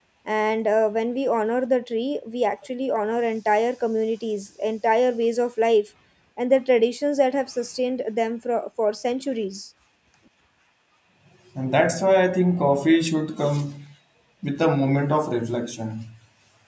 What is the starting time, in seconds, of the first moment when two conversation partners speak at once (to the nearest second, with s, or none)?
none